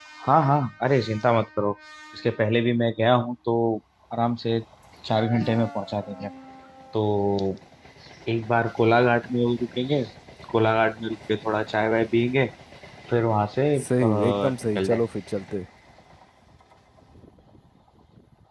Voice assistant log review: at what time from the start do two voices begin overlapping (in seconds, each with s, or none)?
13.8 s